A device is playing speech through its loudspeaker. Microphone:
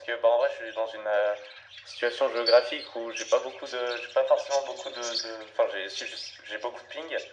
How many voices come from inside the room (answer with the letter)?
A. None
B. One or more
A